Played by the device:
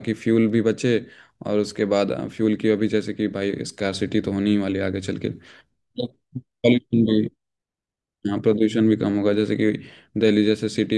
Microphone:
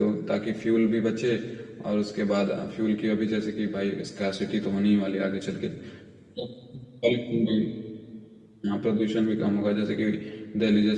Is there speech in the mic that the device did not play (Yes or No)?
No